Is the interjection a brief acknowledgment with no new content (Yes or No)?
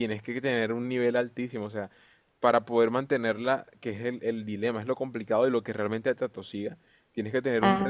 Yes